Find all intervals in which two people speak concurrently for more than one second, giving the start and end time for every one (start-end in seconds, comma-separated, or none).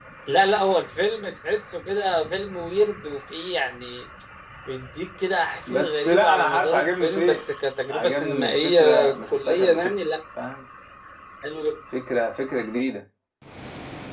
5.7-7.4, 7.9-10.0